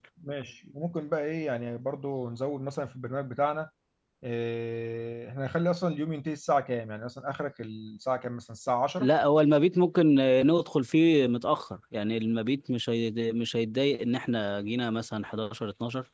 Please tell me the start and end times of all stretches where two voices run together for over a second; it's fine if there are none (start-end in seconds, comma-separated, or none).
none